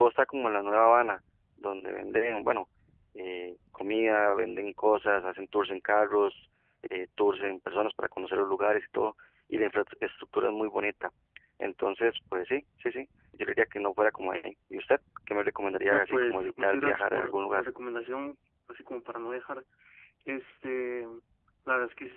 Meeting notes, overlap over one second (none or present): present